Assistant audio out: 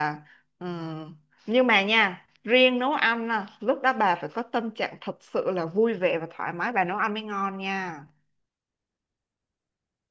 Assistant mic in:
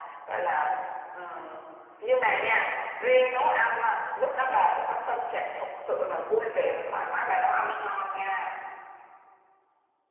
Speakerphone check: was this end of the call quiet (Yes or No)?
Yes